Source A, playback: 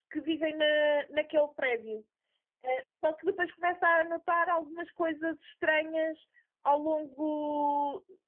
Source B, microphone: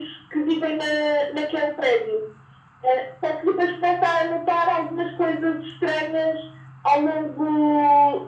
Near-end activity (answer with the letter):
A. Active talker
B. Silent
B